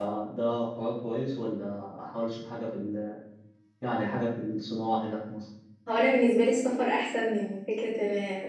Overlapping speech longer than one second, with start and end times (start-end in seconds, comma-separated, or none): none